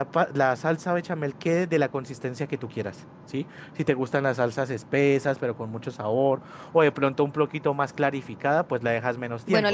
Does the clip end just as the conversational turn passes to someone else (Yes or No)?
Yes